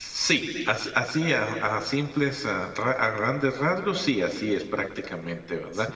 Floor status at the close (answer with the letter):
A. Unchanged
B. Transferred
A